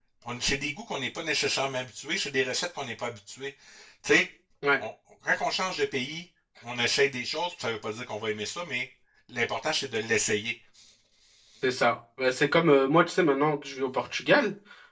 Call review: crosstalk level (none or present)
none